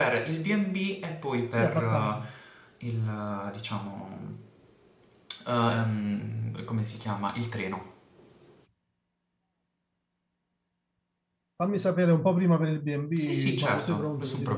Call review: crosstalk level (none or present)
present